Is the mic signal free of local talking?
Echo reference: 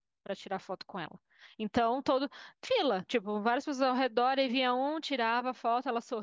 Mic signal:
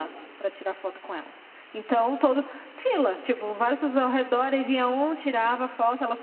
Yes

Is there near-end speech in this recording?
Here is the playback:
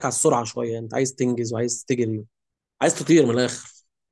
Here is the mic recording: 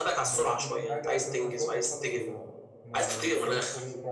Yes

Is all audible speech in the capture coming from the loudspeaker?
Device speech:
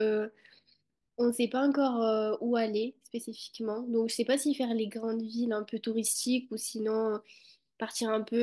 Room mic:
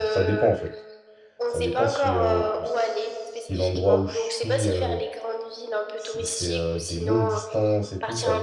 No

